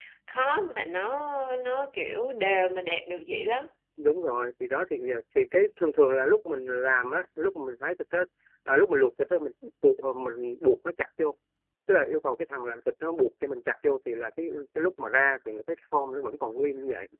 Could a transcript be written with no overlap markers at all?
Yes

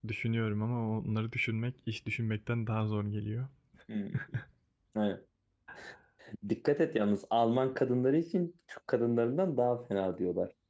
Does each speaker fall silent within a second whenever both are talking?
Yes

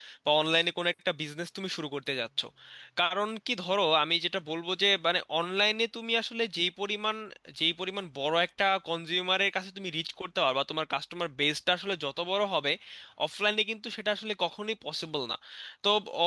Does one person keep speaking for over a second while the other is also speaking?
No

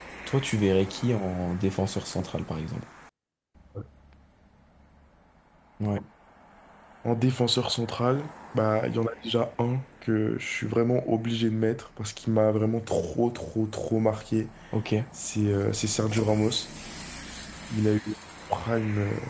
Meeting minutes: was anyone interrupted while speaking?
No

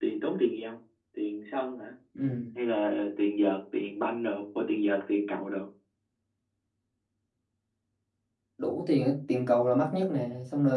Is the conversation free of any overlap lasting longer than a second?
Yes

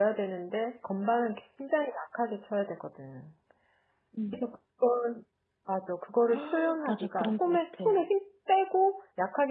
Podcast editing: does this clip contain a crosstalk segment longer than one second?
Yes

